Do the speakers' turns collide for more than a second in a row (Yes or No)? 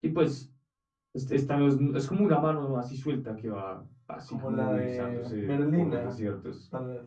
Yes